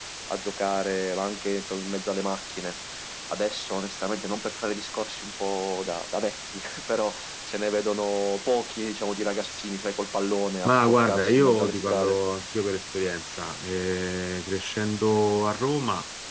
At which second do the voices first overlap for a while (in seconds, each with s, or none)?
10.6 s